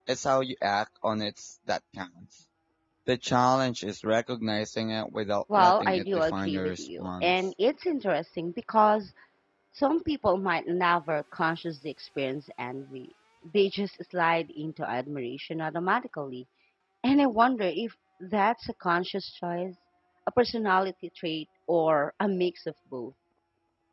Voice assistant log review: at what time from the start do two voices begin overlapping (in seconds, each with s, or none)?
5.5 s